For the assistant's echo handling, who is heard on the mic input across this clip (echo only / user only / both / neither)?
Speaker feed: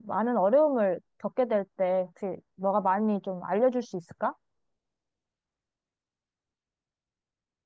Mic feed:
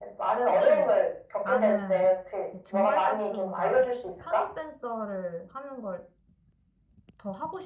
both